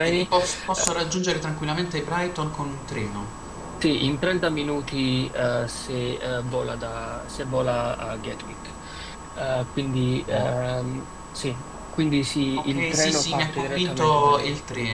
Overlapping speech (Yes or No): Yes